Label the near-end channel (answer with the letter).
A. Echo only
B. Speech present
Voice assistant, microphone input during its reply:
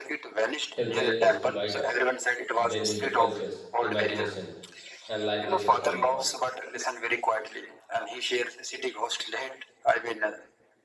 B